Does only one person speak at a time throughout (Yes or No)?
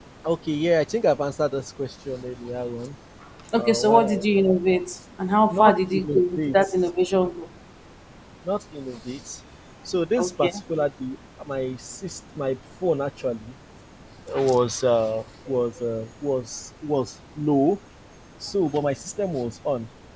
No